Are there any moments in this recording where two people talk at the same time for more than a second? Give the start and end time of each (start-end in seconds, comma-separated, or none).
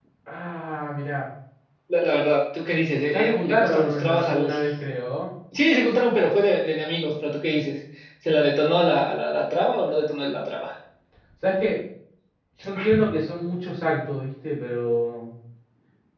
3.1-4.5